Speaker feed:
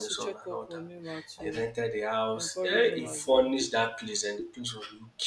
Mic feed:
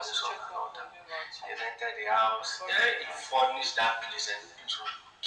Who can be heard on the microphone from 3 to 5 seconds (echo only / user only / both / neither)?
echo only